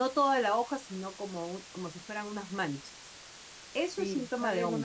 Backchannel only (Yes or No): No